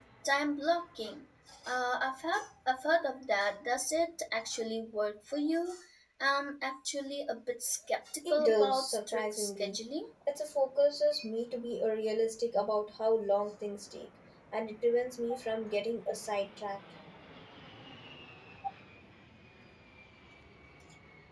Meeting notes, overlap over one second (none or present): present